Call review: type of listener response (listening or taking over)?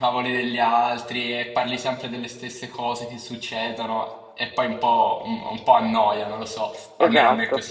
taking over